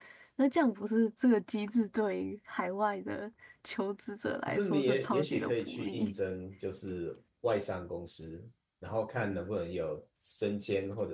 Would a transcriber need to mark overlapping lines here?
Yes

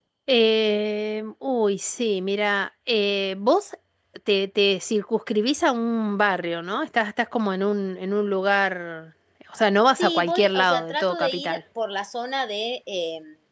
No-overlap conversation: No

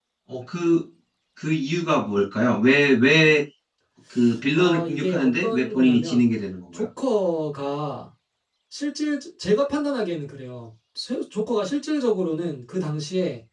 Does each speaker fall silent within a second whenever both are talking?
No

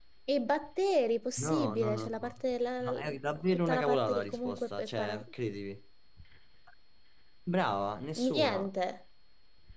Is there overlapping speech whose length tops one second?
Yes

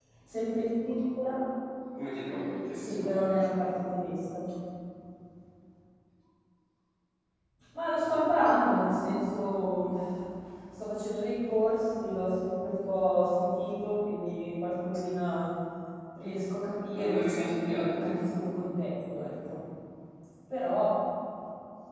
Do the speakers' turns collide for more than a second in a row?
Yes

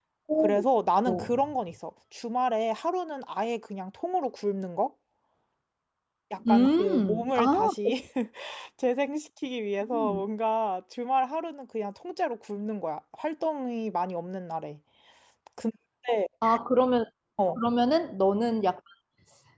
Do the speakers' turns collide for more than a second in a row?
Yes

